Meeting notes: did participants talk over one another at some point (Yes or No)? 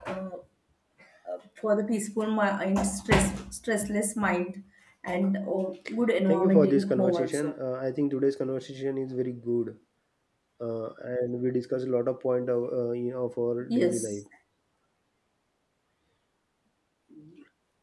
Yes